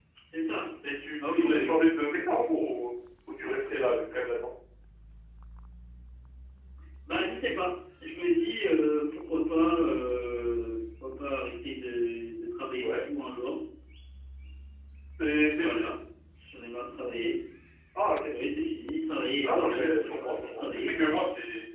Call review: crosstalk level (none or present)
present